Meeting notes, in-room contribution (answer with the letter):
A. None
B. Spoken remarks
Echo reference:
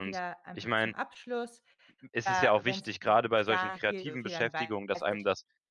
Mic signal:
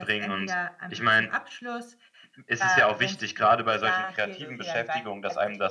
A